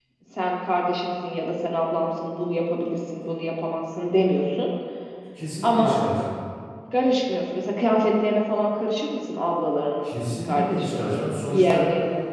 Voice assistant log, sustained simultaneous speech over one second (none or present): present